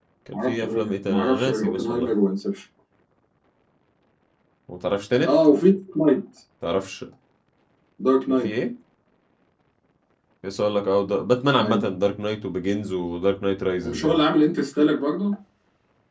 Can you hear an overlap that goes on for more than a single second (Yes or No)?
Yes